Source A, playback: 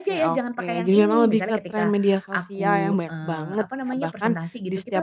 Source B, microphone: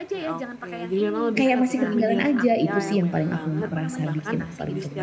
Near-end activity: present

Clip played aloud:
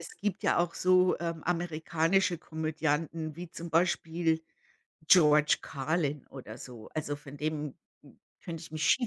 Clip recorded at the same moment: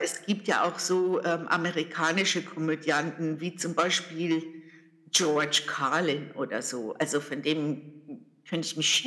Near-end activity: none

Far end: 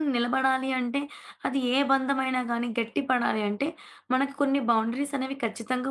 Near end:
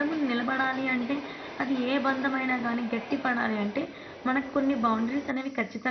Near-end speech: none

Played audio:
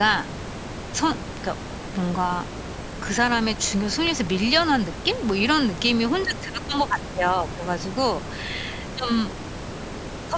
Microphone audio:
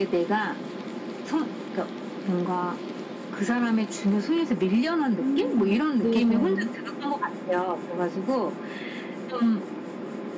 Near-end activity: present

